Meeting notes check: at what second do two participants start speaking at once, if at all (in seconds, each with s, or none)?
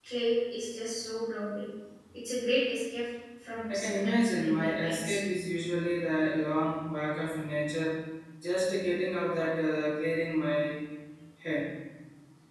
3.7 s